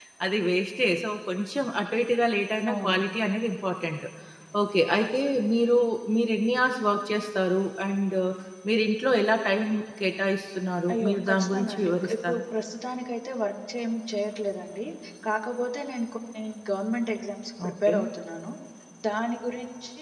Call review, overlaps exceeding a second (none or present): present